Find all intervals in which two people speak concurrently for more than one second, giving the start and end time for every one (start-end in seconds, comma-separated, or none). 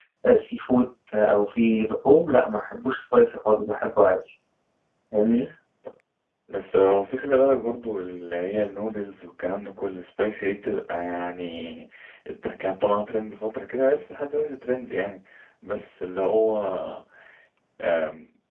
none